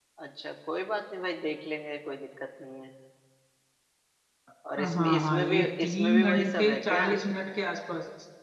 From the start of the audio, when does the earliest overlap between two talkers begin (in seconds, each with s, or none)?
4.8 s